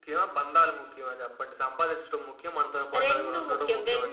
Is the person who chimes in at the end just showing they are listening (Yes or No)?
No